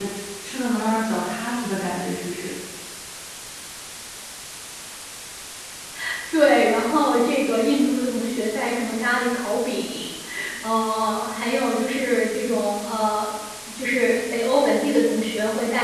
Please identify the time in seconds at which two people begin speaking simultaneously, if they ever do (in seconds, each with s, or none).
none